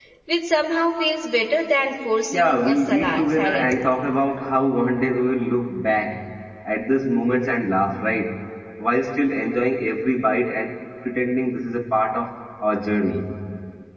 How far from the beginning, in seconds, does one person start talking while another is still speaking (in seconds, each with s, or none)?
2.3 s